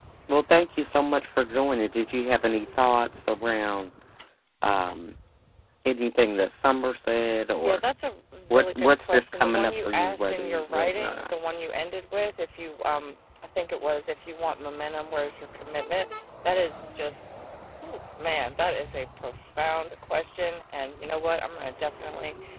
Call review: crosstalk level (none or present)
present